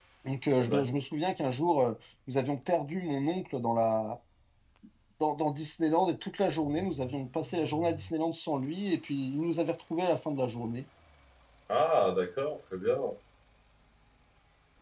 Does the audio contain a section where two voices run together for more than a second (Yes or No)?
No